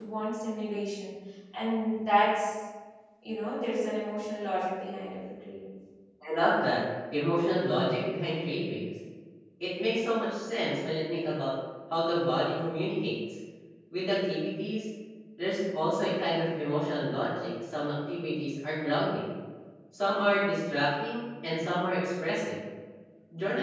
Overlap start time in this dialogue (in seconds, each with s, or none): none